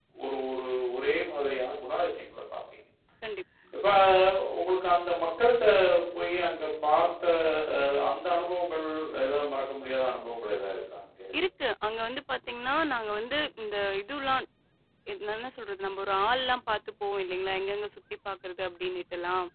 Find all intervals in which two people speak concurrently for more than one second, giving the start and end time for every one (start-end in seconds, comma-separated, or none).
none